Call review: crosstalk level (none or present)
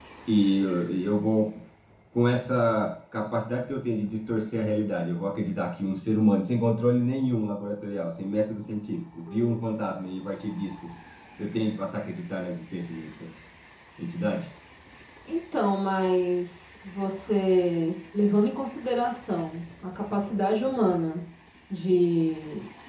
none